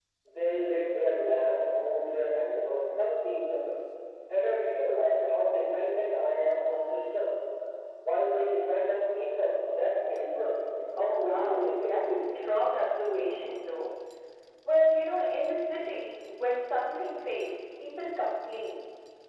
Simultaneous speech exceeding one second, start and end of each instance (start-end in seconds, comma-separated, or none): 11.0-12.4